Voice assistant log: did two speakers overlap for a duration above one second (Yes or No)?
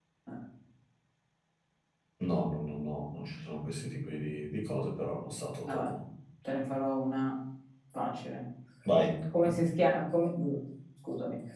No